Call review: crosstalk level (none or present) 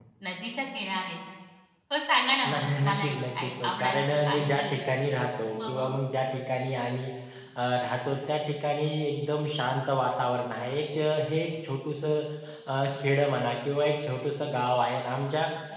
present